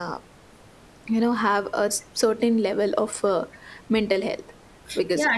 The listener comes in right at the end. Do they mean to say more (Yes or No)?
Yes